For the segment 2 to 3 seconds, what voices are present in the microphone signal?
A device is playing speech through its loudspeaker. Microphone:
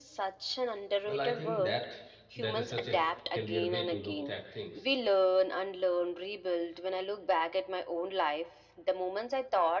both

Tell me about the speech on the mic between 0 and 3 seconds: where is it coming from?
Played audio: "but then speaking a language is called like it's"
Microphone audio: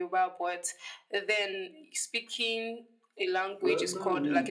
echo only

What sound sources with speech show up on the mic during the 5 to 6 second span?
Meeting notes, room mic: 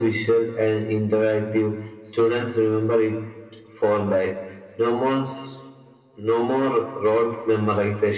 echo only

